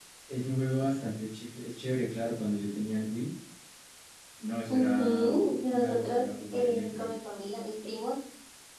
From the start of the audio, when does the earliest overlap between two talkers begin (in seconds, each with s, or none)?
4.7 s